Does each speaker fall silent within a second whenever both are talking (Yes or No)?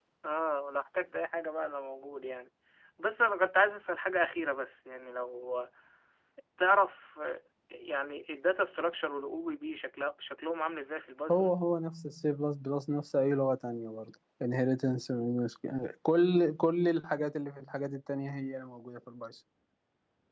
Yes